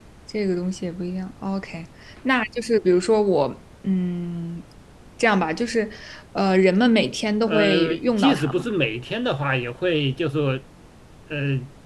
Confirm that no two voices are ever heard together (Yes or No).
No